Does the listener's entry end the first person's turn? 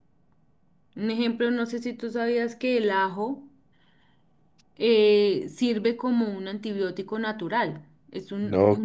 Yes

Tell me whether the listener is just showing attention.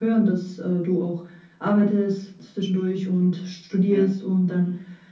Yes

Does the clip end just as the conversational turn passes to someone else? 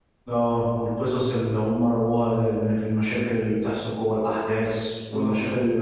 No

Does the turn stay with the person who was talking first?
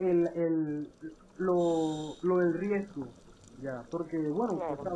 Yes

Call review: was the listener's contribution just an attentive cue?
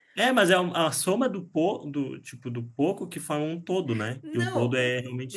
No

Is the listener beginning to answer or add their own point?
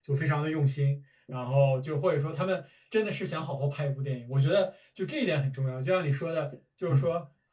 No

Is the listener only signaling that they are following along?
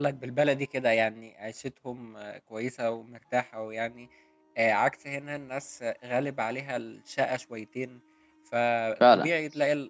Yes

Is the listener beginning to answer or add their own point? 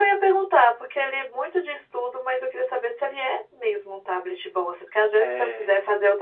No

